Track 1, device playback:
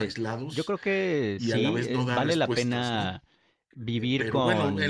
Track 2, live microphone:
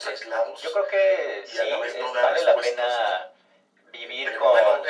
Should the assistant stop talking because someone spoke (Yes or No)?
No